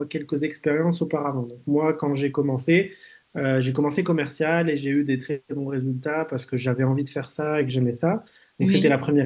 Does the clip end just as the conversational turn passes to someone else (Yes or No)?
No